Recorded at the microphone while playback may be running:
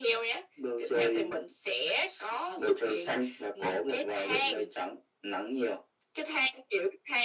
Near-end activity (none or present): none